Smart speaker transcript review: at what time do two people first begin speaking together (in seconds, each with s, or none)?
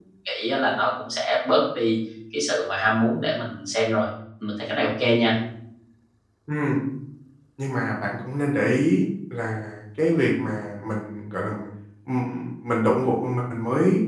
none